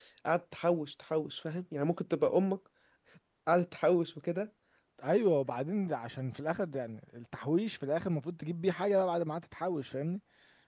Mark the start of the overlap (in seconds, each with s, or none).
none